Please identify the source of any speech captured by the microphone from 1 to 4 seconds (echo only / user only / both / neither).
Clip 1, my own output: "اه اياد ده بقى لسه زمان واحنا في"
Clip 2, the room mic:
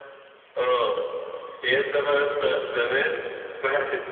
echo only